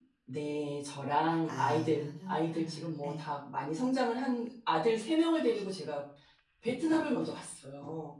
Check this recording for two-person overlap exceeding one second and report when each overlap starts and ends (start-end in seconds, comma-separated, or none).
1.5-3.2